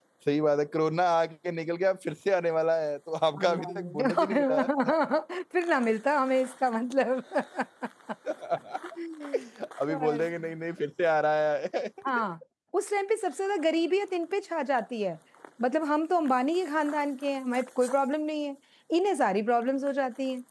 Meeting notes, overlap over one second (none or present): present